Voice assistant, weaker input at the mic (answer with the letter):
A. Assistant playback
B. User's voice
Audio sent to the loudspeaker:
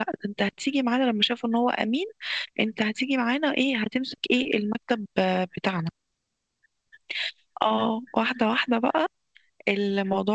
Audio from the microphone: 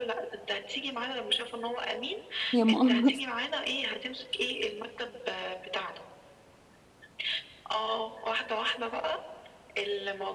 A